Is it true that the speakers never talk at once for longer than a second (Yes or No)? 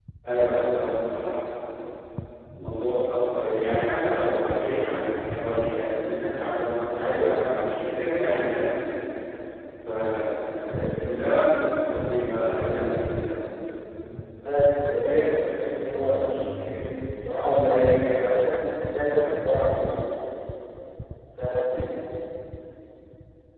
Yes